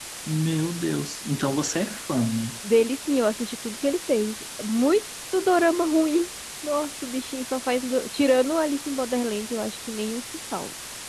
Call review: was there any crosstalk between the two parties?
No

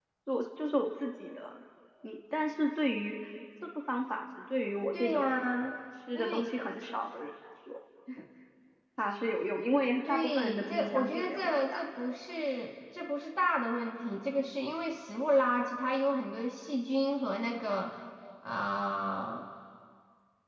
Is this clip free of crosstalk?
No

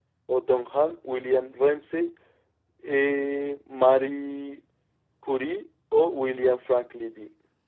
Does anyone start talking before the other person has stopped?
No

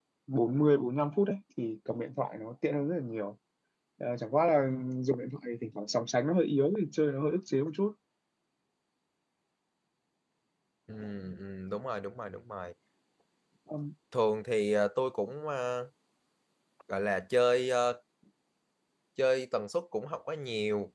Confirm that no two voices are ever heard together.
Yes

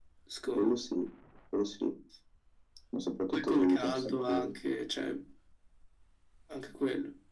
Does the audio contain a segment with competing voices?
Yes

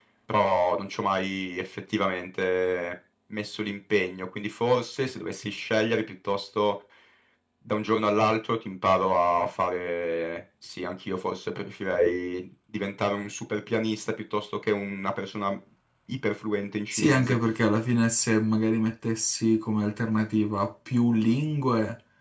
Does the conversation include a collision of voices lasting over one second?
No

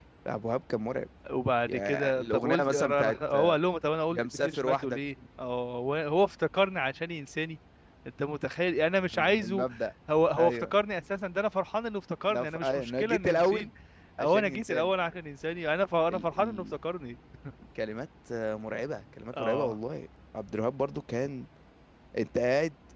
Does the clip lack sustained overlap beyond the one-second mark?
No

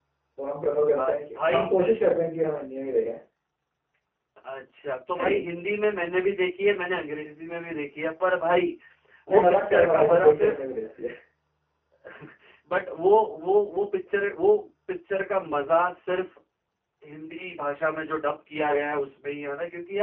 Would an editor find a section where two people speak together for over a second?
Yes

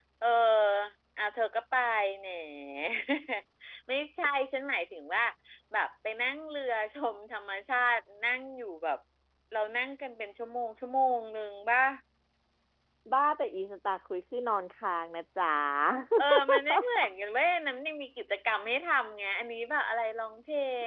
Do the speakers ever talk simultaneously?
No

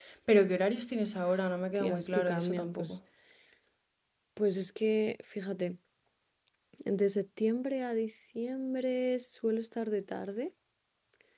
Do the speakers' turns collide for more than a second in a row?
Yes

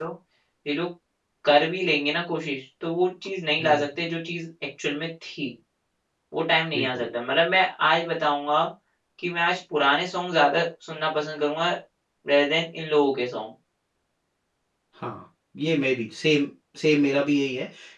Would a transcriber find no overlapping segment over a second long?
Yes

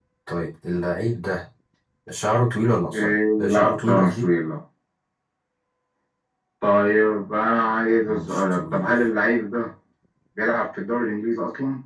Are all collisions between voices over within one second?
No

